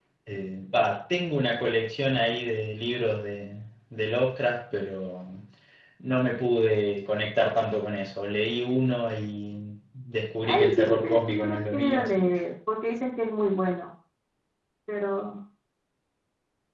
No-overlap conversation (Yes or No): No